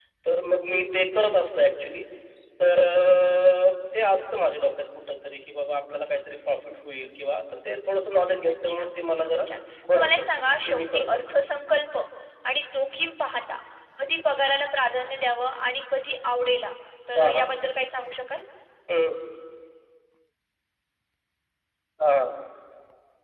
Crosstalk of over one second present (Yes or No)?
Yes